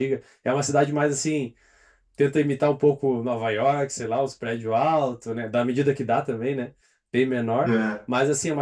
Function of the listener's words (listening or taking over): listening